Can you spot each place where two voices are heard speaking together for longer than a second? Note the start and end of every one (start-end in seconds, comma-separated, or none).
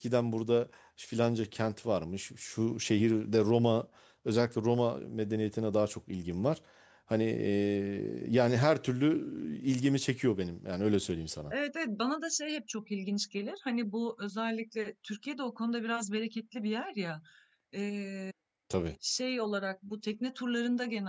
none